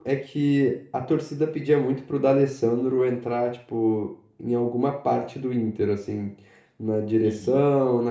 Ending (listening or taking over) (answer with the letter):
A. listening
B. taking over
A